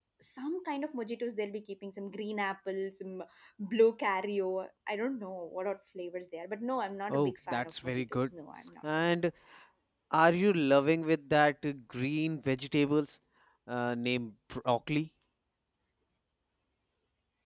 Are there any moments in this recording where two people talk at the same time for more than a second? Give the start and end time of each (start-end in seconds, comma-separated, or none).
7.1-8.3